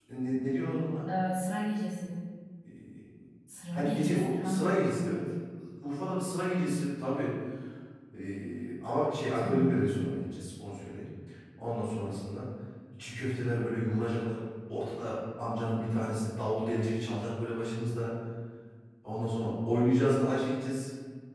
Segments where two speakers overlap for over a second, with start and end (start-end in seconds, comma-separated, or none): 3.7-4.9